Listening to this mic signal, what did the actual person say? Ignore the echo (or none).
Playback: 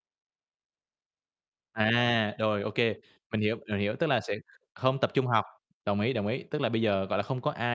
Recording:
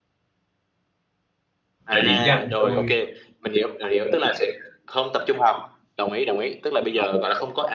để điểm danh thôi.